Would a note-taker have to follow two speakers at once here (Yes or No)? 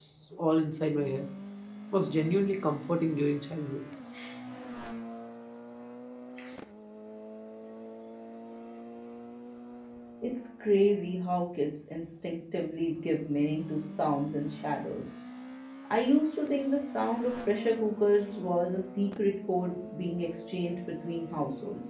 No